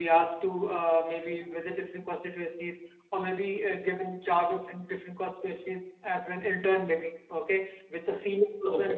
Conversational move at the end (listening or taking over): listening